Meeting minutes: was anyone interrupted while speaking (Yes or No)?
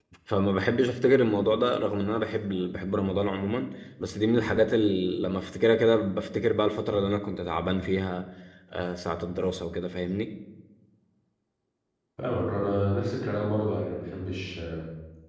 No